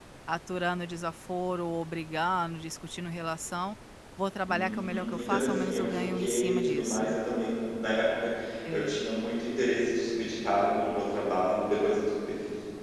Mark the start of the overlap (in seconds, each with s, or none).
4.5 s